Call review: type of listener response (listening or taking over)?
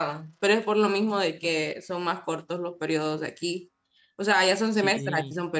listening